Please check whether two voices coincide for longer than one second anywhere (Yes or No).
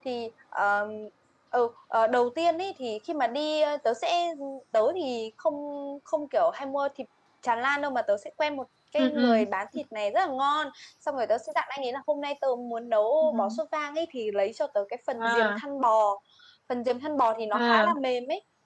No